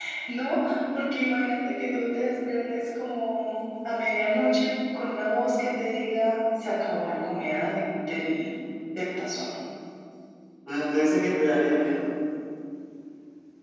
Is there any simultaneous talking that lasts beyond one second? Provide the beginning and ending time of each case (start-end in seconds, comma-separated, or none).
none